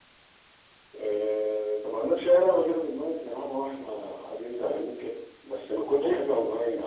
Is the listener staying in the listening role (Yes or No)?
Yes